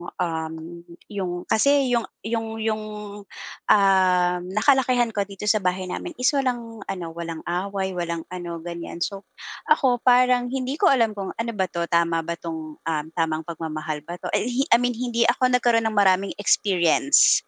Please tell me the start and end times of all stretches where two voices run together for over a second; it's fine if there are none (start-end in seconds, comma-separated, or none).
none